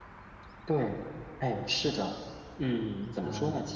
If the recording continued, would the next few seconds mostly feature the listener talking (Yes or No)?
No